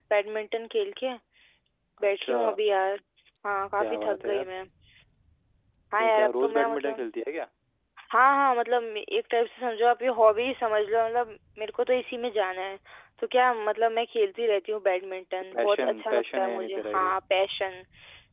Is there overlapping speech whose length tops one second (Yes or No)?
Yes